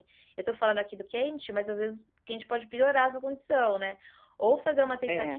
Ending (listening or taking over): listening